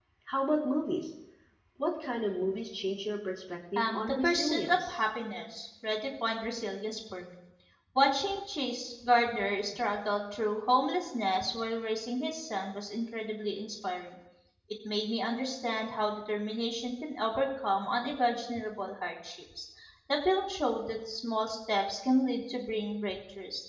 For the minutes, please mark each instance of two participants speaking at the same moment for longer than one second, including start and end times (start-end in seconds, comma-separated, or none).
3.8-5.0